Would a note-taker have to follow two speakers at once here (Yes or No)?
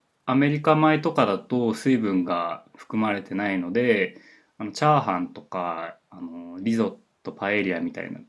No